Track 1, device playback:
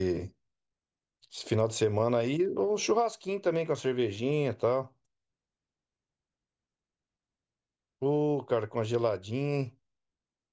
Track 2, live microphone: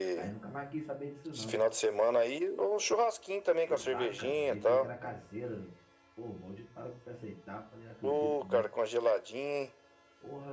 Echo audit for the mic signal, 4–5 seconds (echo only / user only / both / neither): both